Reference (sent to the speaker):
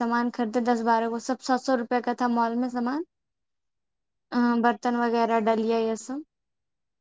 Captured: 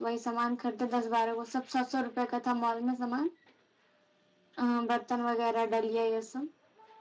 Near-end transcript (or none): none